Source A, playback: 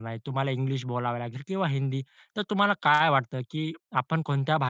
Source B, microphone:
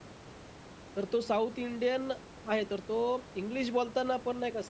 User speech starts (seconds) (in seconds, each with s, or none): 1.0 s